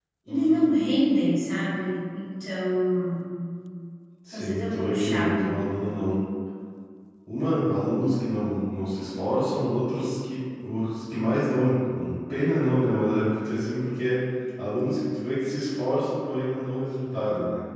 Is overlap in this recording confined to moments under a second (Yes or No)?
No